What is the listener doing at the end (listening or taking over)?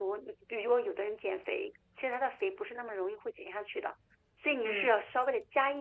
listening